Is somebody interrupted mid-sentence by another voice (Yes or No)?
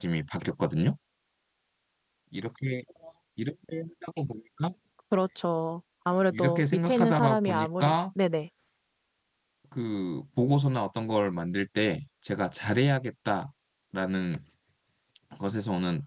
Yes